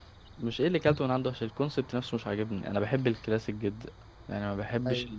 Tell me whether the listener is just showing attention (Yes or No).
Yes